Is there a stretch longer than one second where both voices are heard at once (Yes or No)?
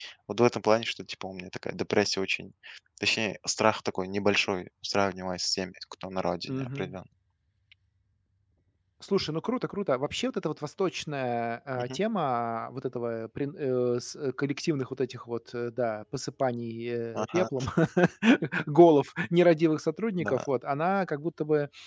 No